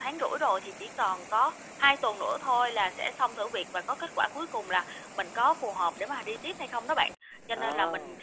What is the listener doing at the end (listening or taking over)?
listening